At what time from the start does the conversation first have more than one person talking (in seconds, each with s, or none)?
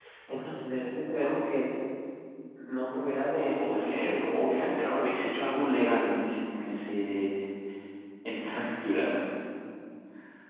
3.4 s